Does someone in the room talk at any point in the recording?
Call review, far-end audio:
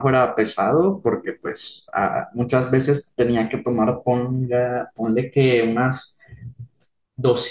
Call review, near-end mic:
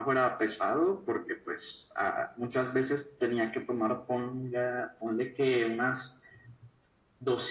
No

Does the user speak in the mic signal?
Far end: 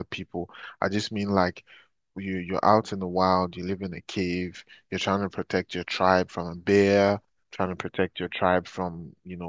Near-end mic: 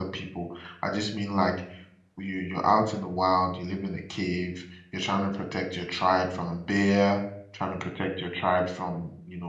No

